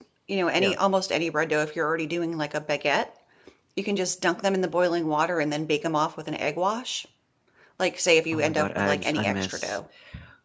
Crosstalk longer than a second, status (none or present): present